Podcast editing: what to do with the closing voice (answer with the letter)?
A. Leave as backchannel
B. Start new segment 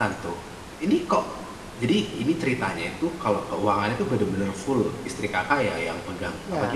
B